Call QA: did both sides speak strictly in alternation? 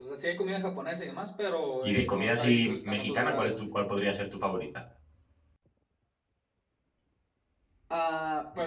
No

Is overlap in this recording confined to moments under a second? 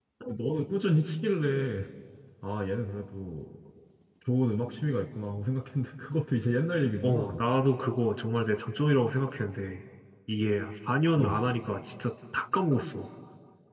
Yes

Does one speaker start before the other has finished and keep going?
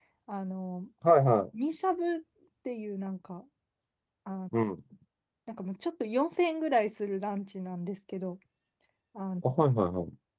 No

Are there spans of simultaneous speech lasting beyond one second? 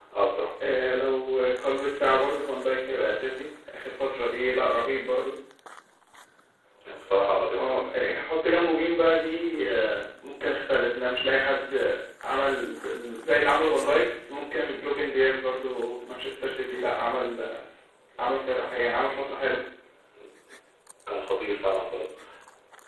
No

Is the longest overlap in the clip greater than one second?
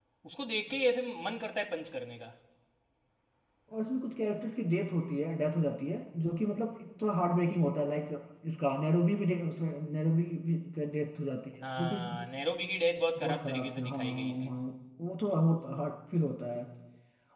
Yes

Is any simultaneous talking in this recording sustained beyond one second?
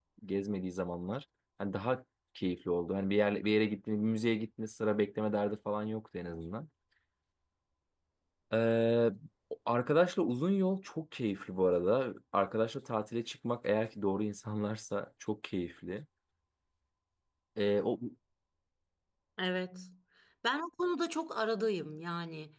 No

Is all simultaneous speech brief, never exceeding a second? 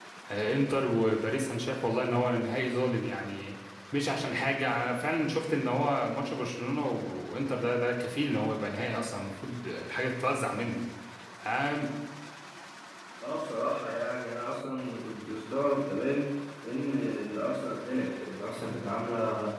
Yes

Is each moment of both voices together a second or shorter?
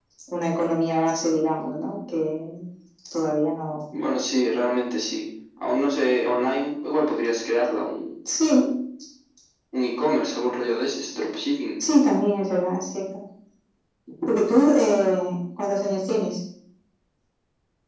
Yes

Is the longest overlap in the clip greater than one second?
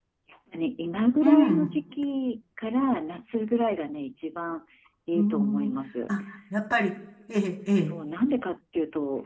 No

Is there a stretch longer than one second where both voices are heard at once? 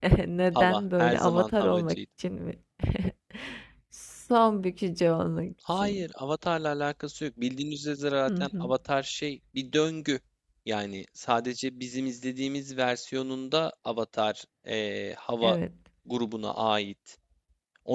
Yes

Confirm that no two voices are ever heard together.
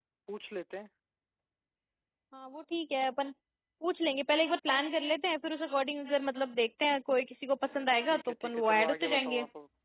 No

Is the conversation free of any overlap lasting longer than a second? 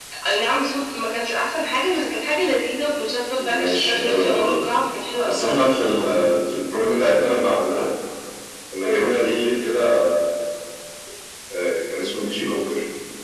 No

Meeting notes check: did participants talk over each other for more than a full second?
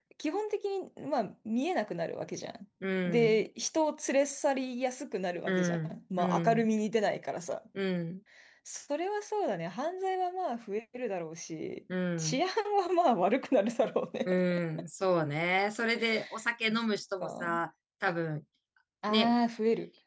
Yes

